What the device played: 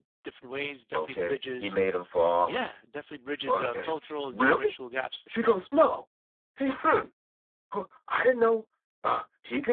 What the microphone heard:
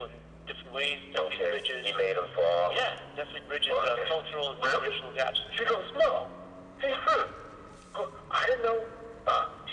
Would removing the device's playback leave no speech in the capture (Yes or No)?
Yes